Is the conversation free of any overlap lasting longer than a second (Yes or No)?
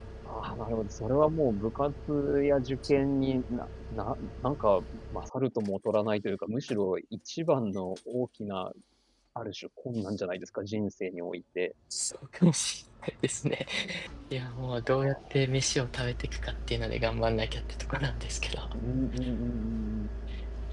Yes